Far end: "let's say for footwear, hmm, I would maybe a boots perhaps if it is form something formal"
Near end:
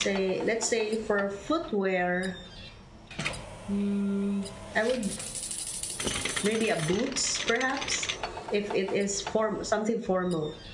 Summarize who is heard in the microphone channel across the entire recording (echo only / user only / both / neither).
echo only